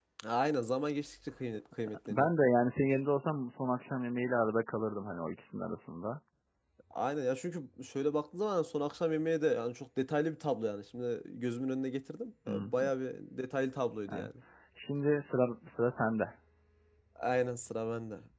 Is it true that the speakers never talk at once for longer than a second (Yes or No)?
Yes